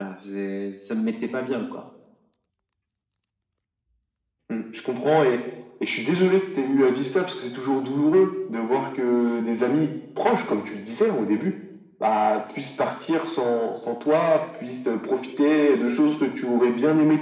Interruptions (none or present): none